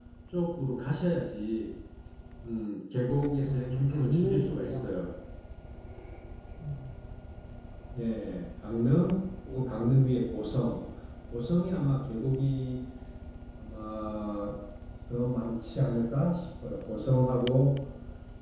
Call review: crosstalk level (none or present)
present